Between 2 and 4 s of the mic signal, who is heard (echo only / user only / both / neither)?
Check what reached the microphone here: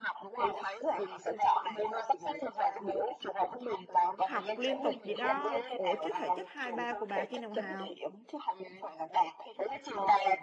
echo only